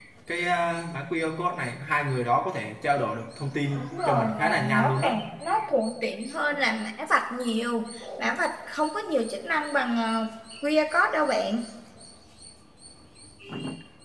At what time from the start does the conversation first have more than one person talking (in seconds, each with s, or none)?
3.8 s